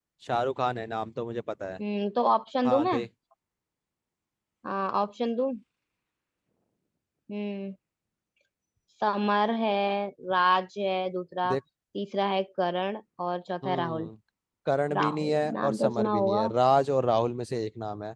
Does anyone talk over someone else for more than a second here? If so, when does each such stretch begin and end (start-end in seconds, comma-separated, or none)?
15.0-16.5